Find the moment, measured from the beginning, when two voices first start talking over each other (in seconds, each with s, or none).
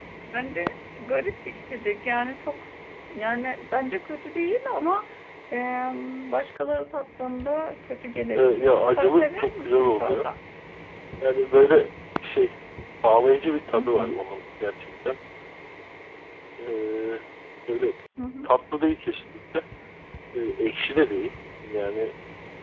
8.4 s